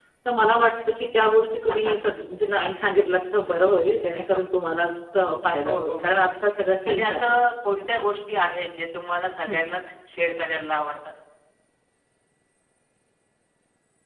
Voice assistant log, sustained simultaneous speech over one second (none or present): present